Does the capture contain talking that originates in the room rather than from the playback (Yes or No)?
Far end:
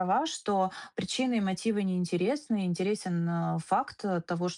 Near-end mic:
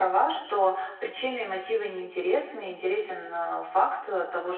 No